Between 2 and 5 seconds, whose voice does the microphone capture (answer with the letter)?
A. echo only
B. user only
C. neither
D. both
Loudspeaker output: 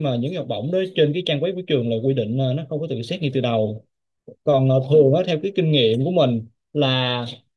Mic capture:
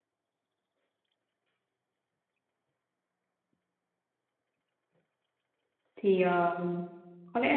C